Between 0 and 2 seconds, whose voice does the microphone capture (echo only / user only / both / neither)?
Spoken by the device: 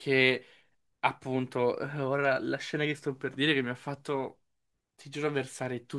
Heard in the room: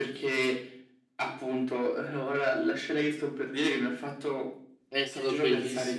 echo only